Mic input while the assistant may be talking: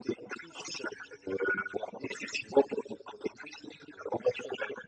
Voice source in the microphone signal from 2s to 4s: echo only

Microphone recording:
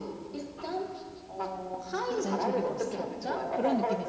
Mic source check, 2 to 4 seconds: both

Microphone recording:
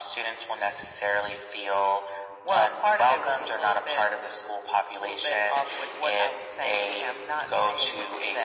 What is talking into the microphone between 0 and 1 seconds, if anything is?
echo only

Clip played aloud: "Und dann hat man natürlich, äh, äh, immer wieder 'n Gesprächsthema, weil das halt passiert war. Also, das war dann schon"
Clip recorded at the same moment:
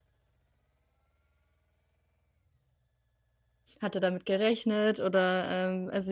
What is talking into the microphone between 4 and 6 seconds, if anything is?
user only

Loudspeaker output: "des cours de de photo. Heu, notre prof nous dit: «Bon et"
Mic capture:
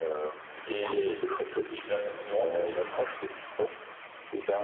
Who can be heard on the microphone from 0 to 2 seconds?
both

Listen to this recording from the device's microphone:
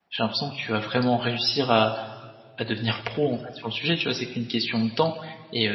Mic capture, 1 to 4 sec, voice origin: user only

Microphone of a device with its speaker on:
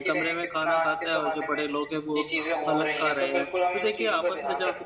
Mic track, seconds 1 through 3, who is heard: both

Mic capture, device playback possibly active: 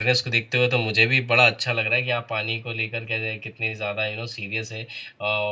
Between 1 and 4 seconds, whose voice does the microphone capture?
user only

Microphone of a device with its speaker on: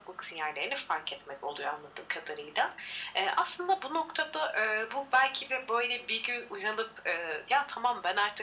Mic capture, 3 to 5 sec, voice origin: echo only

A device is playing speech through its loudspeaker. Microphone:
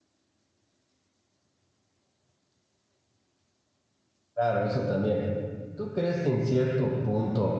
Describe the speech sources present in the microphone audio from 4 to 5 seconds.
user only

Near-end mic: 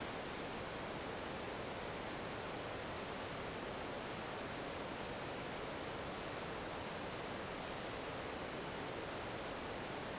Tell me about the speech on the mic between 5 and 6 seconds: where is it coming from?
neither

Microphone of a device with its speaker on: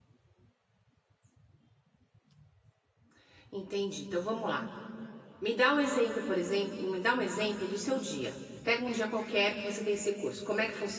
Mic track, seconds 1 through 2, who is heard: neither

